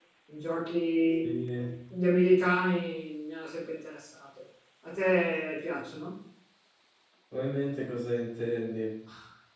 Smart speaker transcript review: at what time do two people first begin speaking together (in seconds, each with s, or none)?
none